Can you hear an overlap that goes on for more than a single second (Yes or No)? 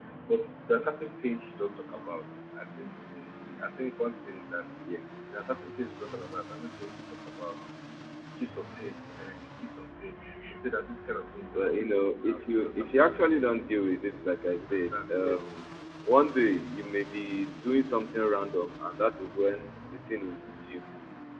Yes